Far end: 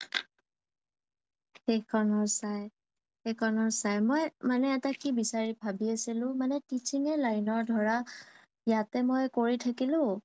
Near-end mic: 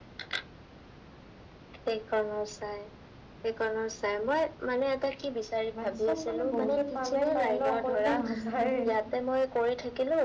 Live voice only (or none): মেথছত মানে বহুতে টান পায় ন কৰিব নাযায়ে